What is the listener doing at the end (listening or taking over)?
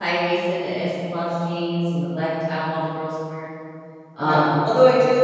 taking over